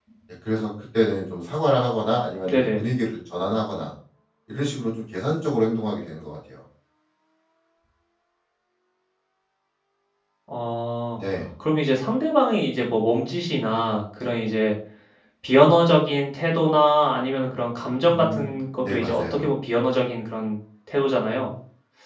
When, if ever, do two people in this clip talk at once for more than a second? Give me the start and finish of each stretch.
18.1-19.4

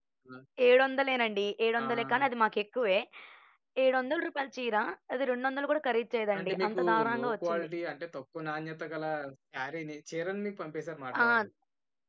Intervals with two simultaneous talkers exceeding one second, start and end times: 6.4-7.7

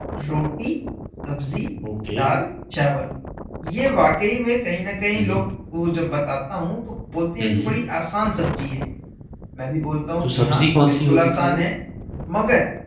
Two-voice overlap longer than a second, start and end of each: 10.2-11.6

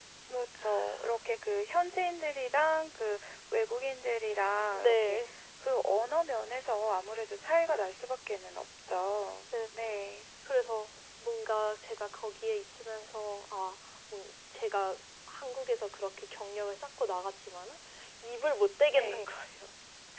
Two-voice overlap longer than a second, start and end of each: none

